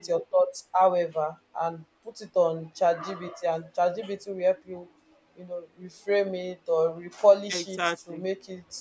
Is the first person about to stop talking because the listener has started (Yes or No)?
No